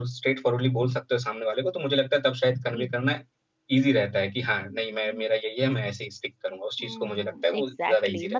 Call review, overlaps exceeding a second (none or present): present